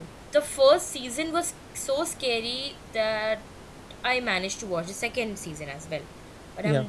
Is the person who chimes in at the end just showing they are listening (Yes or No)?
Yes